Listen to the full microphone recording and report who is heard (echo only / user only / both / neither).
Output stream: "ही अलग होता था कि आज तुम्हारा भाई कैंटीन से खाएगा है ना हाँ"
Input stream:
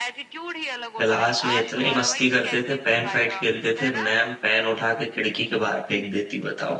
both